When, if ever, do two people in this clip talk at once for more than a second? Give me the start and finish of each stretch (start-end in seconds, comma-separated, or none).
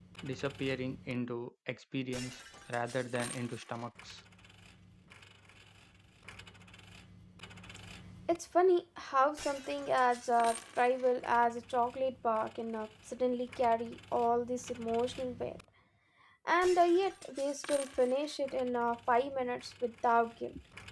none